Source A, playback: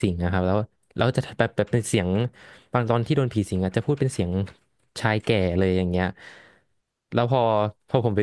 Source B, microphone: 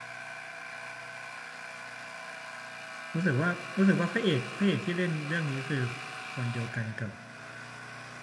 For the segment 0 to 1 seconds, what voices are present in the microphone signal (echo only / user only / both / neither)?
neither